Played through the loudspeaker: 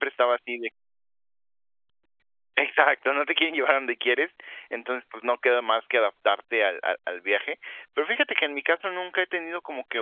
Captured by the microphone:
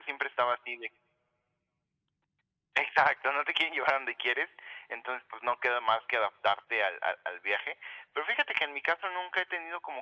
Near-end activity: none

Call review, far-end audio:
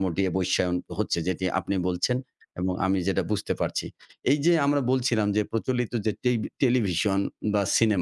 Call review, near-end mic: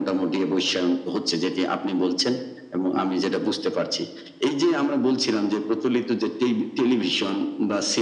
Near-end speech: none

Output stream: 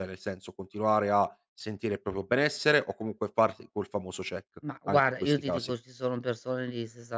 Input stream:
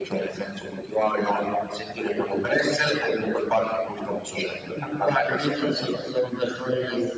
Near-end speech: none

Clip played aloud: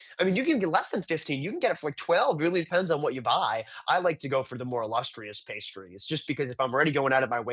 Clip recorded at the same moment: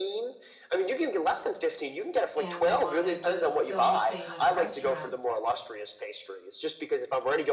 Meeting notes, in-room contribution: present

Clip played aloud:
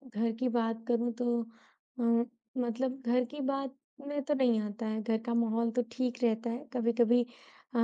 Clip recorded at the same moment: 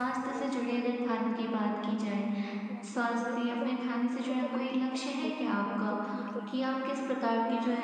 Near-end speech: present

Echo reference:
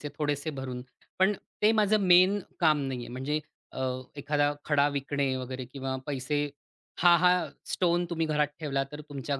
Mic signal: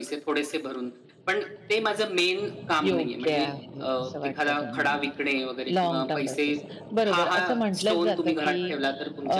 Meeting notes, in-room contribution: present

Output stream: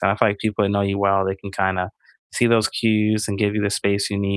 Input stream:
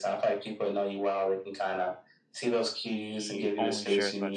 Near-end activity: present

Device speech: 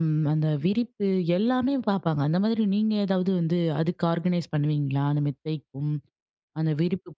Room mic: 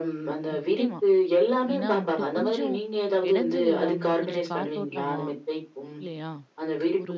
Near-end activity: present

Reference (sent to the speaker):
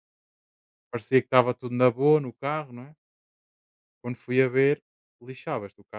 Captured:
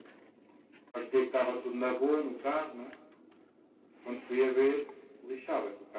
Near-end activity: none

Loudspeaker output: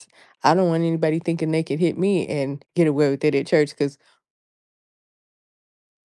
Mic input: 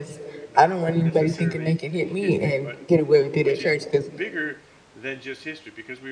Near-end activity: present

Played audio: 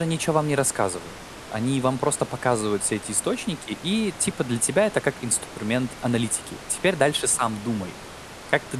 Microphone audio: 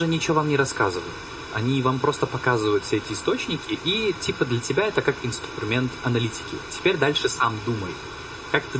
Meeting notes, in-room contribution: none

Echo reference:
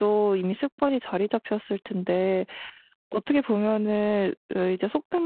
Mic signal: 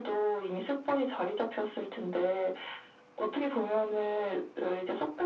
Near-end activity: none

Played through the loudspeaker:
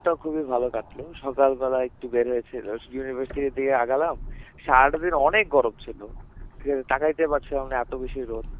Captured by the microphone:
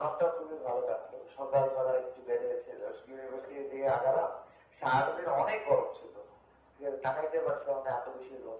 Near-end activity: none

